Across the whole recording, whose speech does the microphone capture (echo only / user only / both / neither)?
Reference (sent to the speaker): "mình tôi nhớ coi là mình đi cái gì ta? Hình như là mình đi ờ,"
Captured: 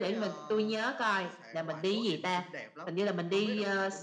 both